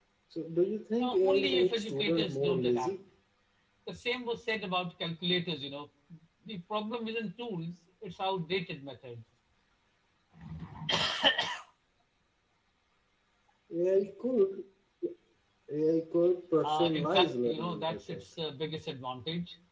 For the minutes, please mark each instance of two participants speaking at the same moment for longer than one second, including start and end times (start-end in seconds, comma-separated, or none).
1.0-2.9, 16.6-18.2